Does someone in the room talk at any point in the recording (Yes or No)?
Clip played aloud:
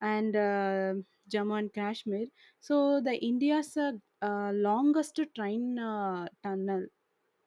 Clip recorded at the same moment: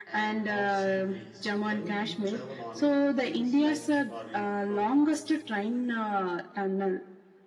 Yes